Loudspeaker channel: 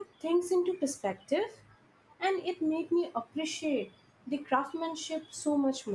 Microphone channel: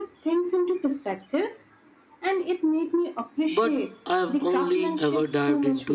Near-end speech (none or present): present